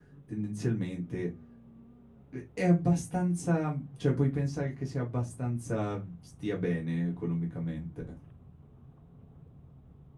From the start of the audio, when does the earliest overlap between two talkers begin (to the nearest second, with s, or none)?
none